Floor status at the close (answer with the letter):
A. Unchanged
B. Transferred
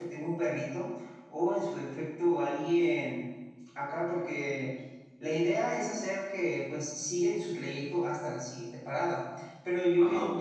A